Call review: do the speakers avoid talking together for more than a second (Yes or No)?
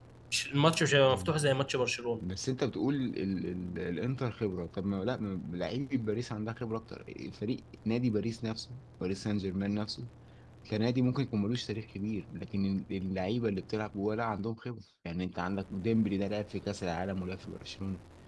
Yes